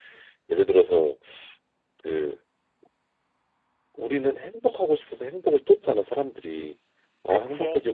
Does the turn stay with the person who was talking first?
Yes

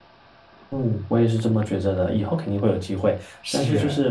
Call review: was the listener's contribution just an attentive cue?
Yes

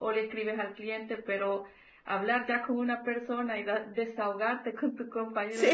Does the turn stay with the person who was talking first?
Yes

